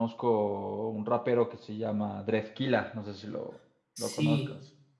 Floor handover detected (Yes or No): Yes